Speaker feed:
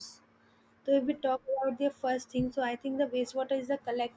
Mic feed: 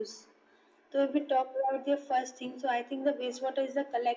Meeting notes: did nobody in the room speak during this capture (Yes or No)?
Yes